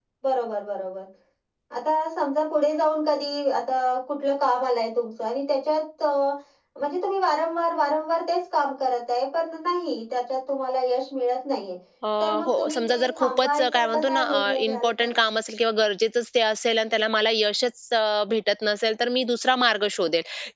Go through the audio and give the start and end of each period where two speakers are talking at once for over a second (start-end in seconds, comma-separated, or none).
12.5-15.2